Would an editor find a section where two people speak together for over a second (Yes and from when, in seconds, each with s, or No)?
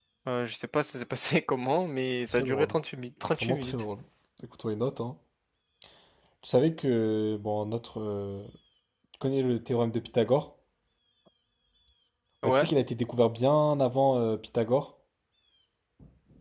No